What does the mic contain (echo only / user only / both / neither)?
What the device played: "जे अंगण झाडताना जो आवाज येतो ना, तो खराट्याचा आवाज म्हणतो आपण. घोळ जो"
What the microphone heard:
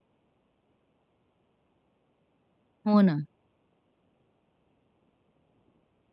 user only